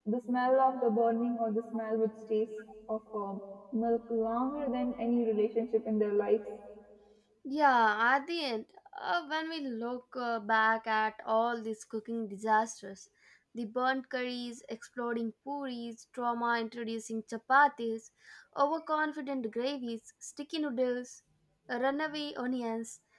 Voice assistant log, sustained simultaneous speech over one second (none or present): none